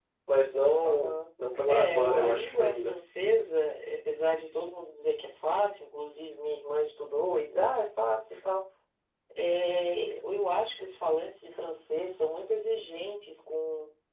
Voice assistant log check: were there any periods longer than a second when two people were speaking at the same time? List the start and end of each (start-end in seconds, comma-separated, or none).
1.7-2.9